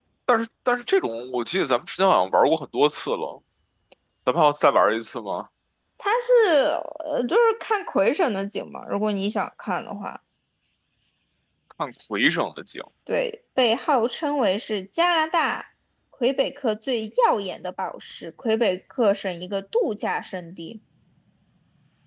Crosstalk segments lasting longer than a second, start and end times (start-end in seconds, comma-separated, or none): none